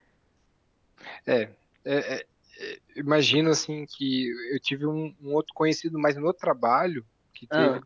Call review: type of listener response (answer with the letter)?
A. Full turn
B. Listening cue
B